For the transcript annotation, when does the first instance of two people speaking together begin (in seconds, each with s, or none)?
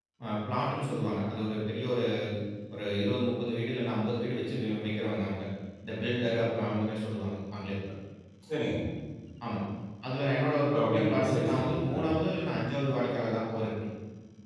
10.7 s